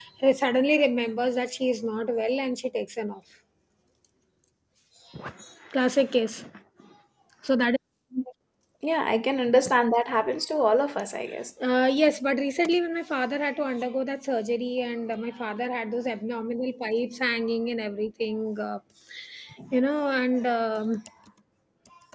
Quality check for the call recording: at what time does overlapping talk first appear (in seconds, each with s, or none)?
none